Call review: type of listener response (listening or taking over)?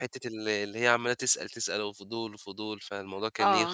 taking over